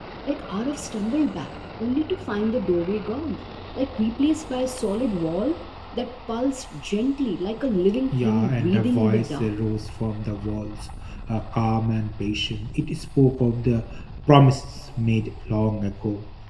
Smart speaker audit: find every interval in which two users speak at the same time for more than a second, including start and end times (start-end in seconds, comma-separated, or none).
8.1-9.5